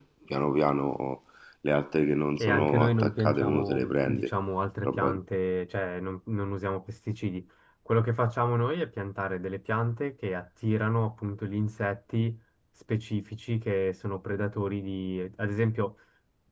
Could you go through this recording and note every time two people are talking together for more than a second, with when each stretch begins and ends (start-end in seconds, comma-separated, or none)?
2.4-4.3